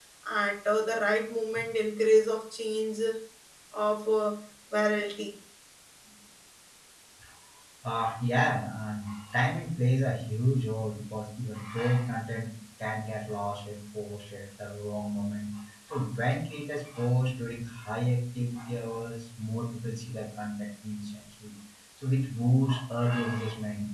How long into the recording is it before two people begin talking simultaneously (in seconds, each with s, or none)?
none